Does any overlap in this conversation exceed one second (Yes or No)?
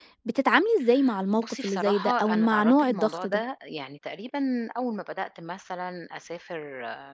Yes